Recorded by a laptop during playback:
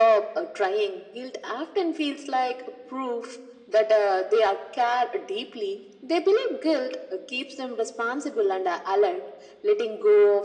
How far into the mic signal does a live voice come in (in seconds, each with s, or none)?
none